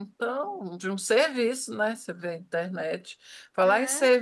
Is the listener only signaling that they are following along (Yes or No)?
Yes